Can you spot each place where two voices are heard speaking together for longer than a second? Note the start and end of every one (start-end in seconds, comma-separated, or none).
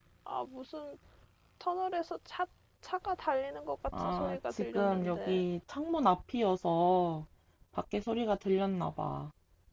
4.0-5.4